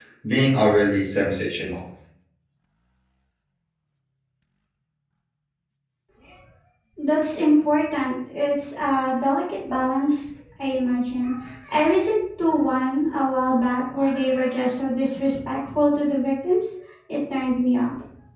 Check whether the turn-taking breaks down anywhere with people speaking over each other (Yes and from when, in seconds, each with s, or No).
No